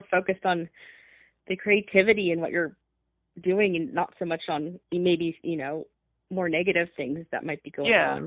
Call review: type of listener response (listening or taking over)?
taking over